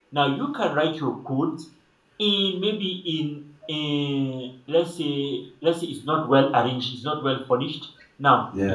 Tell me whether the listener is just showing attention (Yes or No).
Yes